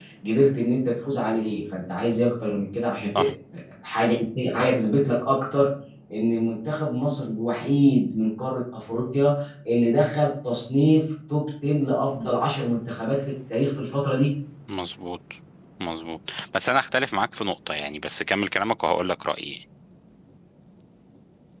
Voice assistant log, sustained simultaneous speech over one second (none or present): none